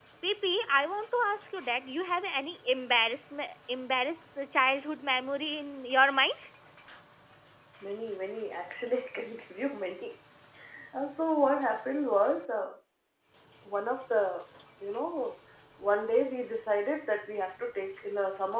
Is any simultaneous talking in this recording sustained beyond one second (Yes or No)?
No